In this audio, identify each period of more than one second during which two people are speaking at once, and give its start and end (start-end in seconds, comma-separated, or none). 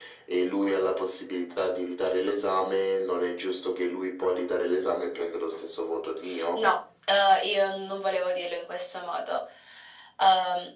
none